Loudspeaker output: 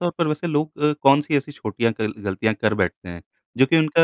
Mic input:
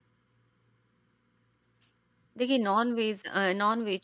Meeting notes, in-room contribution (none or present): present